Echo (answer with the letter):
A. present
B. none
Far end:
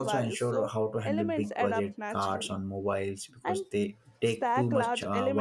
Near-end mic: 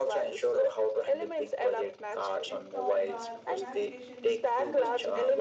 A